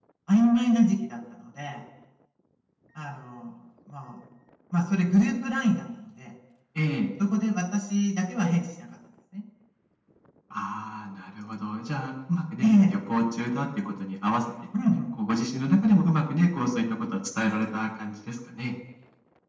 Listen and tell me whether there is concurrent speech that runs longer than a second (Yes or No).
No